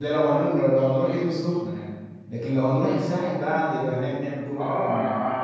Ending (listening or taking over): taking over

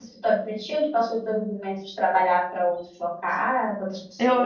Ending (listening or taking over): taking over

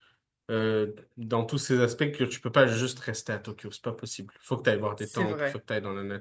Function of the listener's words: listening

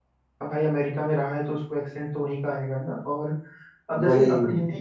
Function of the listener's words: listening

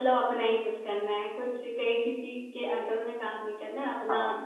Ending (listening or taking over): taking over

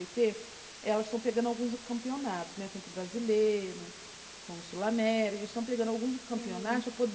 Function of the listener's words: listening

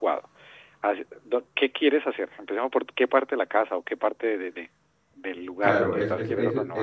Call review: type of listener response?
taking over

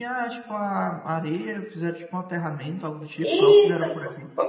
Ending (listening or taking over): taking over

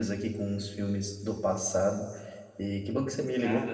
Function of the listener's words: listening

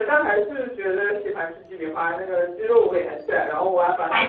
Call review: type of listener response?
listening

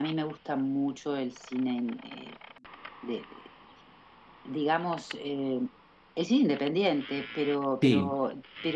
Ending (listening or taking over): listening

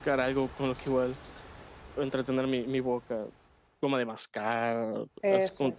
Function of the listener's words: listening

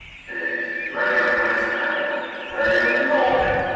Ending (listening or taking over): listening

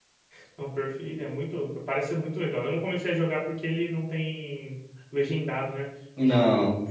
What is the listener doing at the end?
listening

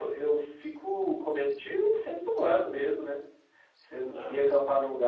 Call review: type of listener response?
listening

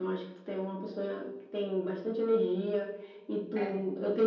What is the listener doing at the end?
listening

